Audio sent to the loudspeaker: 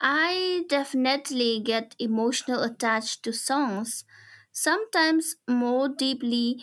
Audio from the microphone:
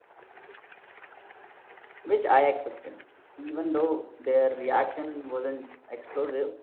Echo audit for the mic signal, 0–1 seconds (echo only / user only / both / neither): neither